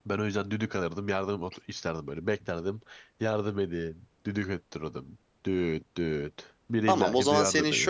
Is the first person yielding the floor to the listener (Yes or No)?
Yes